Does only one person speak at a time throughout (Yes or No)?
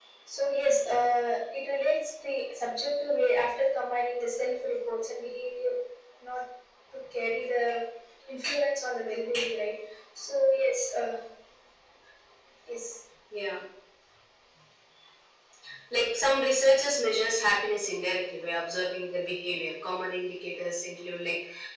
Yes